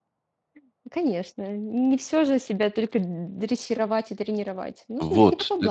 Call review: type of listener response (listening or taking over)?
taking over